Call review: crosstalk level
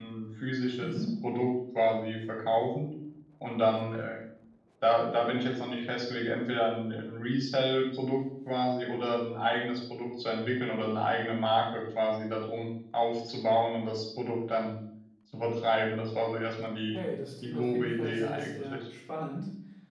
present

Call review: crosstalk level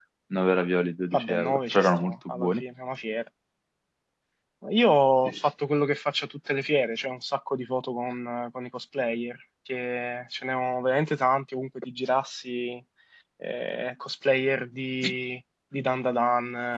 present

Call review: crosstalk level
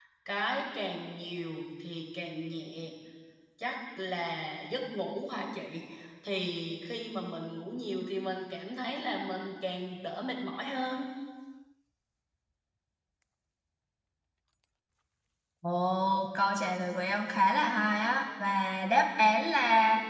none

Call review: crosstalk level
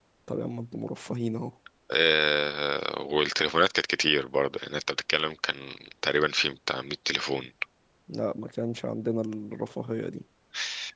none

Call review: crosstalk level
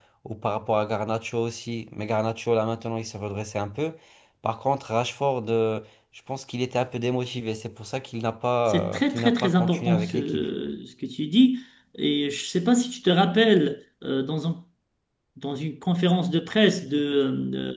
present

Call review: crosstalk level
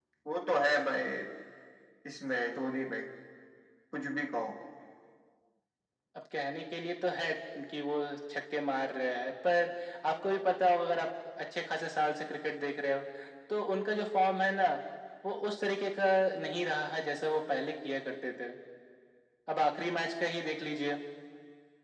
none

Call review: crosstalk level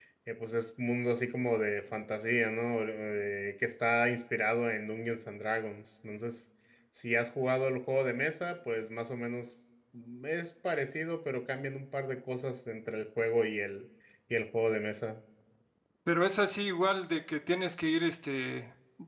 none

